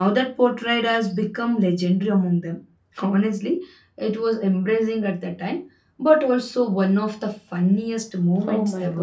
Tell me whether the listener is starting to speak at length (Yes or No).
Yes